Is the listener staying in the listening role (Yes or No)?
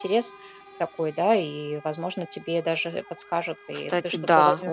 No